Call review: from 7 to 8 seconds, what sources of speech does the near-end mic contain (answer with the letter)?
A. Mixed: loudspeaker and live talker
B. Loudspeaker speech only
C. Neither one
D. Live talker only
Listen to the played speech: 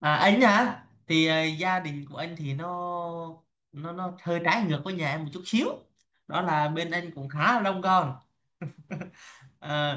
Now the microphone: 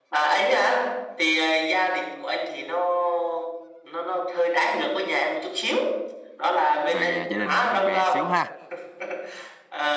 A